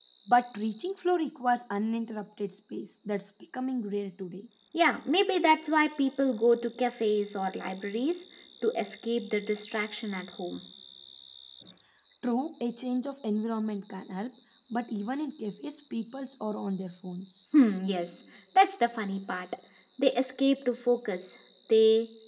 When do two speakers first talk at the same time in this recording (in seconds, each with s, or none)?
none